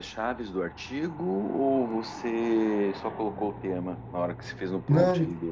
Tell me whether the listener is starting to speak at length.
Yes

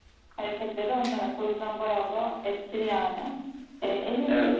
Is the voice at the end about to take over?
No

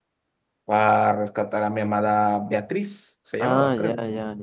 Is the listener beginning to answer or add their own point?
Yes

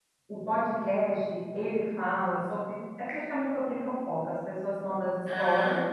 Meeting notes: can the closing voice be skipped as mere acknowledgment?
Yes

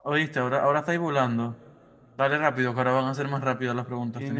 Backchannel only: No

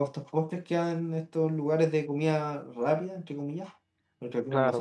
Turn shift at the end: Yes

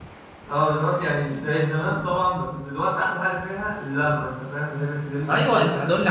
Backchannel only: No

